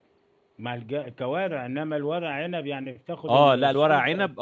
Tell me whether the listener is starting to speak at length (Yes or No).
Yes